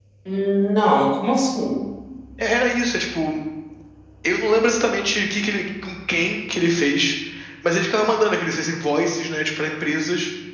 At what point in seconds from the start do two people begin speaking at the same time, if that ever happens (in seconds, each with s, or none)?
none